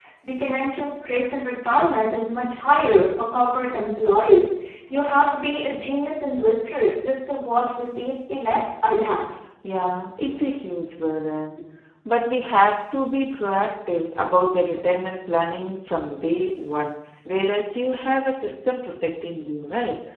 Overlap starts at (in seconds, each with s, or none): none